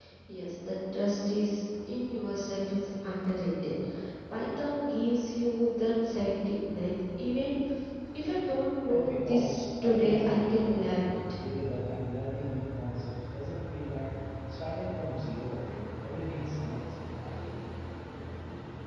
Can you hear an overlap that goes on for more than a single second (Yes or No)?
Yes